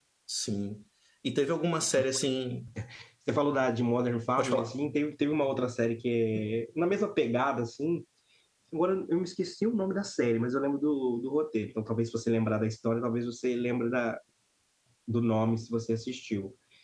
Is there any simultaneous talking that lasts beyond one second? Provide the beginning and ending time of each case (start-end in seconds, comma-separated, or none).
none